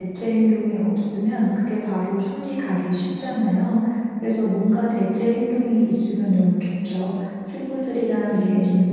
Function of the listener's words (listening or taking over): listening